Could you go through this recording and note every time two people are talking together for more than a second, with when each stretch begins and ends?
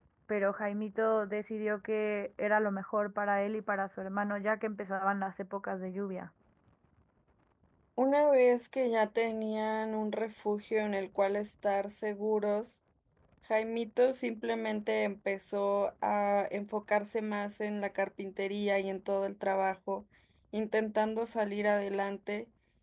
none

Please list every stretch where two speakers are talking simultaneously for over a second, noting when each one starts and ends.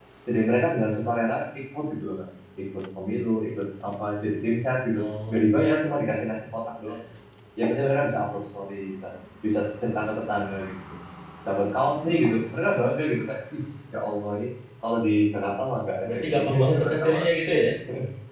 16.0-17.3

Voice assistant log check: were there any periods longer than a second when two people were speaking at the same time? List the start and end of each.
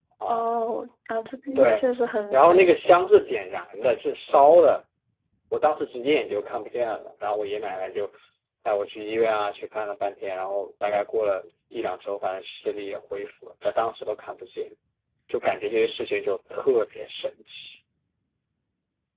none

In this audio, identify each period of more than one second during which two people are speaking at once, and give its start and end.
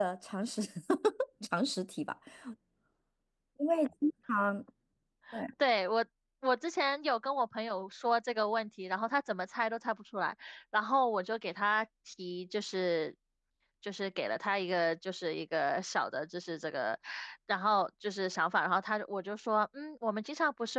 none

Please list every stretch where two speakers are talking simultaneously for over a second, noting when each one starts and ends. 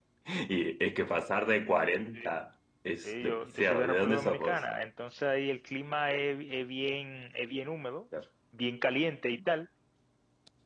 3.0-4.6

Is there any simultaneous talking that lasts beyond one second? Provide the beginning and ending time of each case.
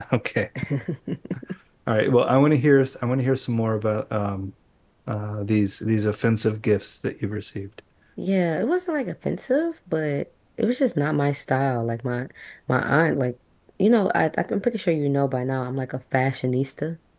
none

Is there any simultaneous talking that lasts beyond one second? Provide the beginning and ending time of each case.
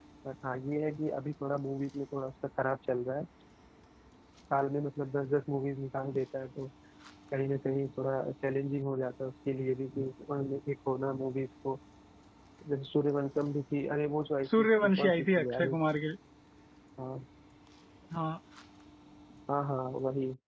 14.6-15.8

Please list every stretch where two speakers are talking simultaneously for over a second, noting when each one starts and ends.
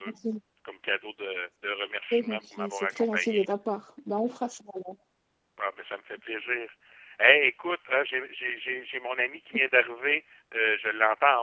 2.1-3.5

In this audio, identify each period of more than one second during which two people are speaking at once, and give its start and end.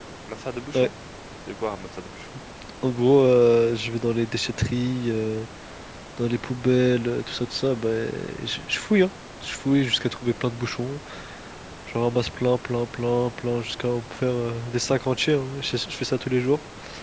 none

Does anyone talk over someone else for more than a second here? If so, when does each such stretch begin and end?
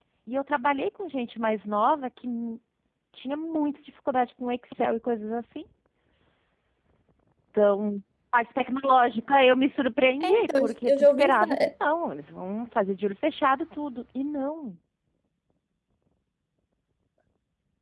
10.2-11.7

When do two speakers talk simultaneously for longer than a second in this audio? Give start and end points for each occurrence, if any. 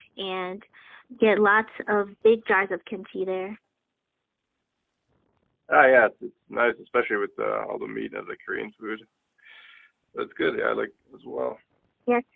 none

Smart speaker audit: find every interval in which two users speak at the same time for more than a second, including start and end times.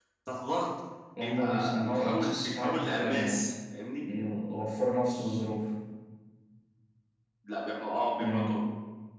1.2-3.5

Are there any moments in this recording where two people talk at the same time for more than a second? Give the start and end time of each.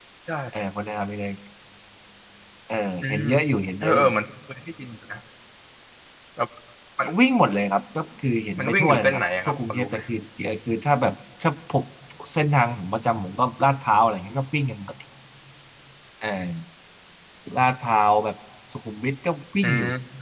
8.6-10.0

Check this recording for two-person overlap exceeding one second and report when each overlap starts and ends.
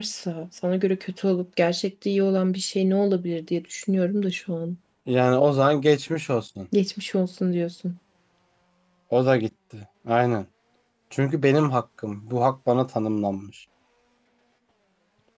none

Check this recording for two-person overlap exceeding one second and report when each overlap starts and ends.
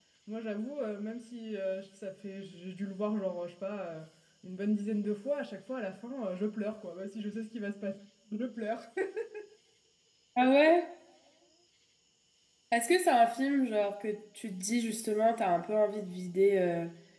none

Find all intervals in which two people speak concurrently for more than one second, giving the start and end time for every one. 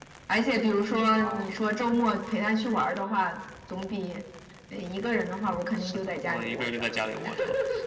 5.8-7.0

